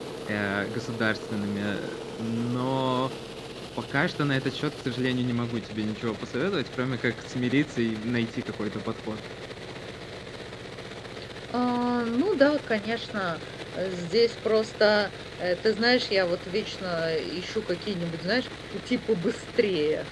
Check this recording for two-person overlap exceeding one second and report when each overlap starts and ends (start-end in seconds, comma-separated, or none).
none